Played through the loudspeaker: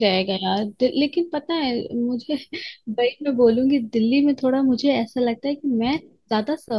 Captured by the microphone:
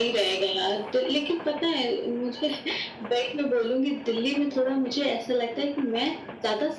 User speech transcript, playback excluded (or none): none